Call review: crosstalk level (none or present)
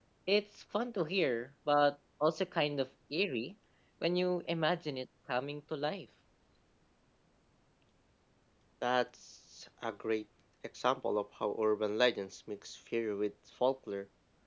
none